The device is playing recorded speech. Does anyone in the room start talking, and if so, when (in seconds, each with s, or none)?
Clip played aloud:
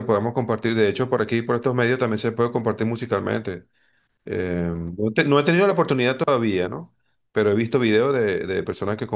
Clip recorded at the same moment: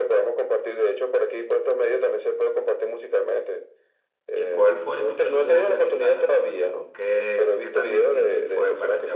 4.3 s